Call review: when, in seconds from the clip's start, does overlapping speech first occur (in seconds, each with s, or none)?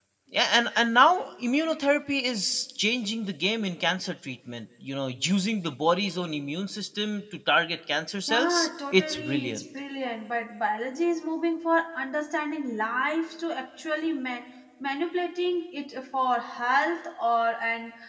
8.3 s